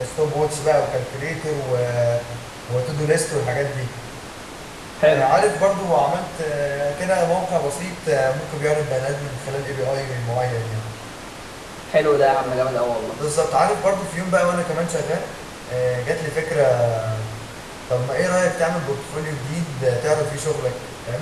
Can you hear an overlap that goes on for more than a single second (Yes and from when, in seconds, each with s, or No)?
No